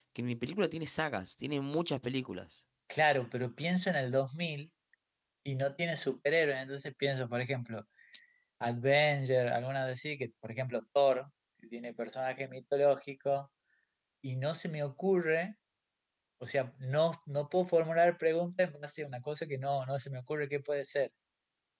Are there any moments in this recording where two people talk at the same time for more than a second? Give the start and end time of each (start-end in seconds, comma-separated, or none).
none